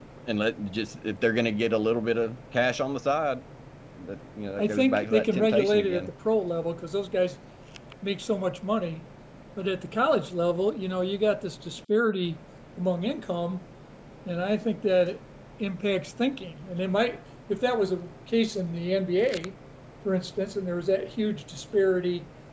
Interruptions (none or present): present